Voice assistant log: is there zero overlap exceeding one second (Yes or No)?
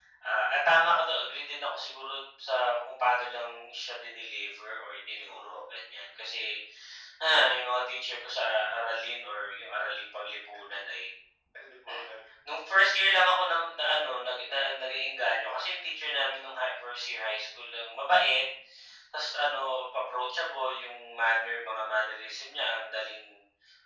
Yes